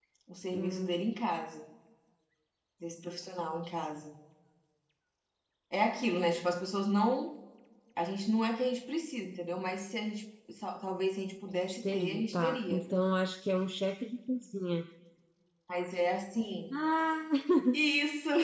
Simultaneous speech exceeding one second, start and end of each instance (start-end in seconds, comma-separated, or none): 11.5-12.8